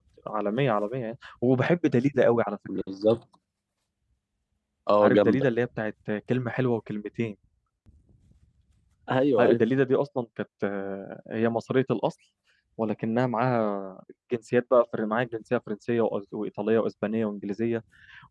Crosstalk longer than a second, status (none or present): none